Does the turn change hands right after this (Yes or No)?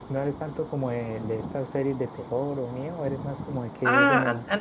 Yes